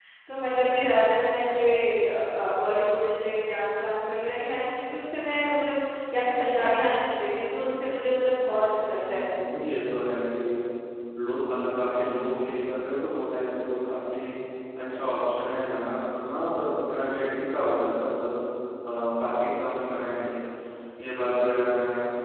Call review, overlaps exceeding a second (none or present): none